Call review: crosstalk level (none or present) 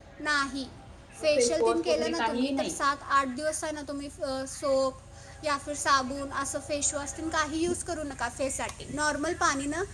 present